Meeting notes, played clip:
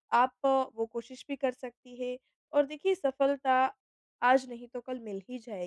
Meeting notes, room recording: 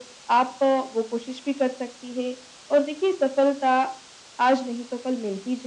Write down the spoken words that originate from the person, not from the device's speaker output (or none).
none